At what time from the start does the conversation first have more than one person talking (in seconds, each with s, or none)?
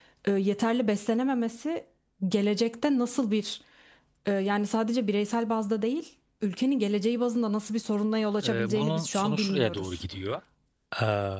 8.4 s